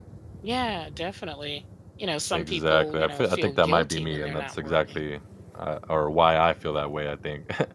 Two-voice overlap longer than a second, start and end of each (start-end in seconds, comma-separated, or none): 2.3-5.0